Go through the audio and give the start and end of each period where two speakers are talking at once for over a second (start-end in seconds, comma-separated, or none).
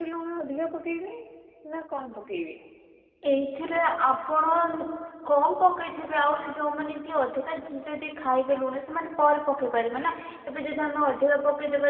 none